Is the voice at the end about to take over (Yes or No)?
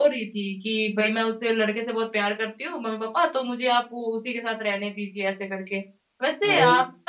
No